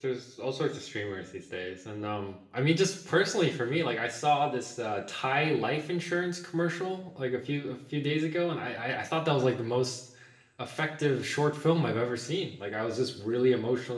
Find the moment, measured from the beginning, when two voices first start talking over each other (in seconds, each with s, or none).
none